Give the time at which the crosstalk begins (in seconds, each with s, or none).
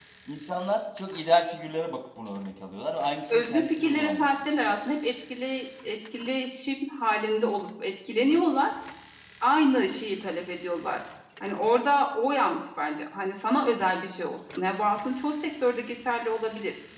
3.3 s